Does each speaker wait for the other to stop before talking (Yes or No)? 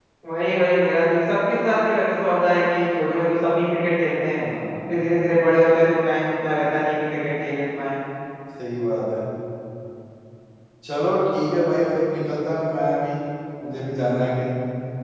Yes